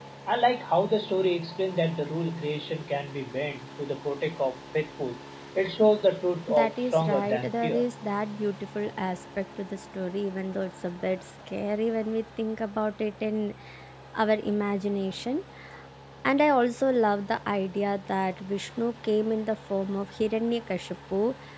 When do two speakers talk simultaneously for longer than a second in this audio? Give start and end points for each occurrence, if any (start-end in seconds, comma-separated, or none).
6.5-7.8